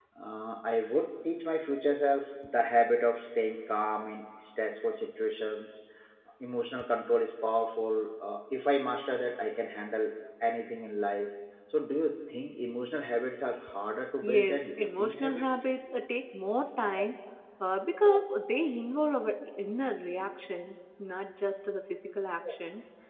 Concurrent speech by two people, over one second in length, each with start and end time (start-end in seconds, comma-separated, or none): 14.2-15.7